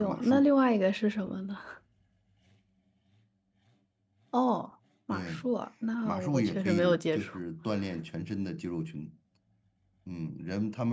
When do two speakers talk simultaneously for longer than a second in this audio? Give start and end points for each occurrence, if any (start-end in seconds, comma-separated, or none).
6.0-7.4